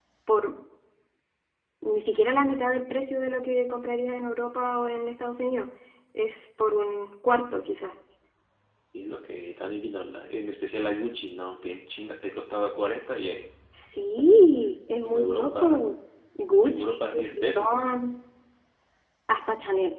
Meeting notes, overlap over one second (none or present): present